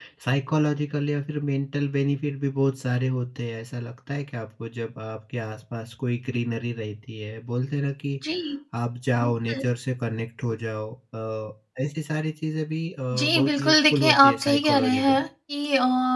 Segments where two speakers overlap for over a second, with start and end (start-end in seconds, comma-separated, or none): 13.1-15.2